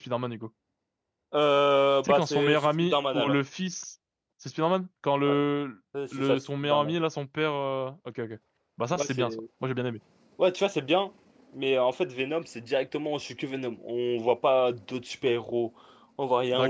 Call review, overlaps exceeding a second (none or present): present